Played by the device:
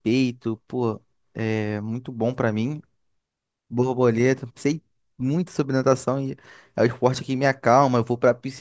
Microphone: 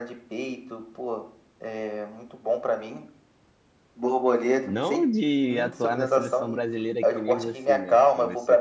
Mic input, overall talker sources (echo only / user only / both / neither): both